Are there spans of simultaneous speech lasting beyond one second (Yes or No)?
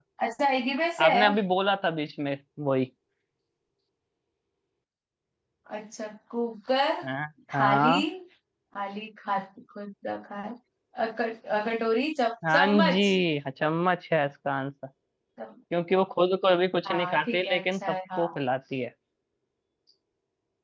Yes